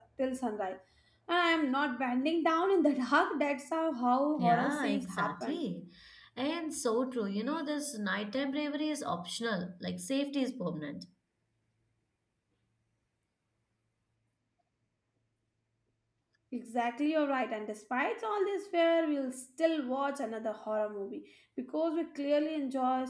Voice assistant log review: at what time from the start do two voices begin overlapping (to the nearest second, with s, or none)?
4 s